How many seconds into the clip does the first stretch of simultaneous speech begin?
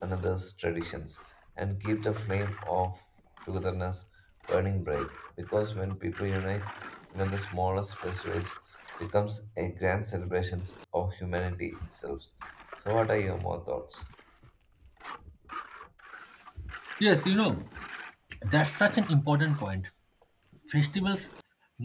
none

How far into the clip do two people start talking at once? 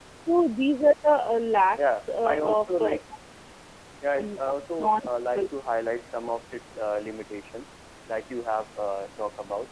1.8 s

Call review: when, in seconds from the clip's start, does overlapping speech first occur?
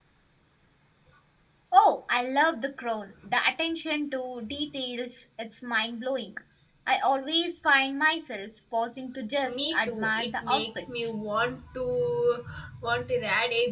9.4 s

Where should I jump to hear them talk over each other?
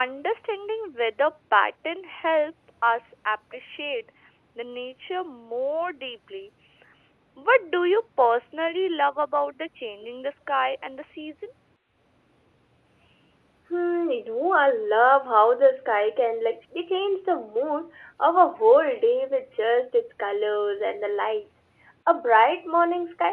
none

